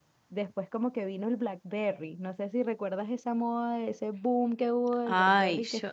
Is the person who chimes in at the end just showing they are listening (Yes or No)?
No